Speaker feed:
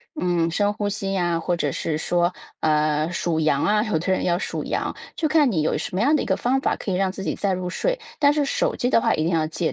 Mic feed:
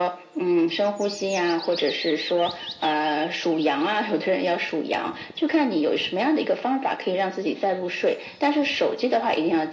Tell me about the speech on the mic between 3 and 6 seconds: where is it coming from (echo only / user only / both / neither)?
echo only